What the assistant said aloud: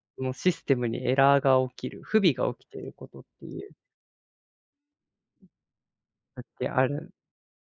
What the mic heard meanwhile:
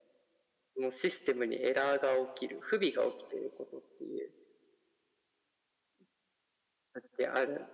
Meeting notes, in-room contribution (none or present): none